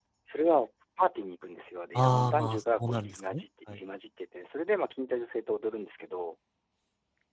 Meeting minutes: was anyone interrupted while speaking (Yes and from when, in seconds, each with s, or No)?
Yes, from 1.9 s